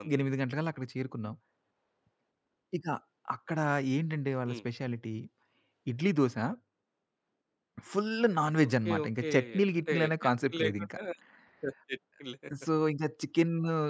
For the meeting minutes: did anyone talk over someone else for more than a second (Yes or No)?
Yes